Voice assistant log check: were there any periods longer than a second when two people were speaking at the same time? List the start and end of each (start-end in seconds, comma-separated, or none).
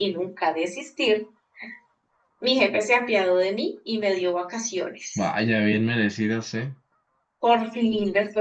none